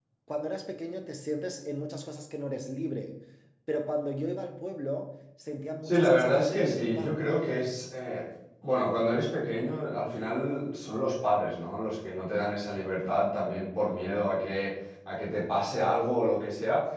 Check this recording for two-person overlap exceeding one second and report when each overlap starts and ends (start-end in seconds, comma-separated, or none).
5.8-7.2